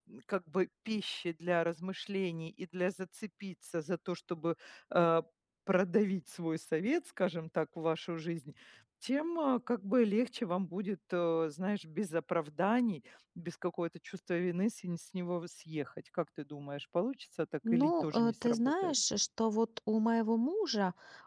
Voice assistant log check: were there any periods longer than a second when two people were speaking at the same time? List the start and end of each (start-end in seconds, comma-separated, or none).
17.7-18.9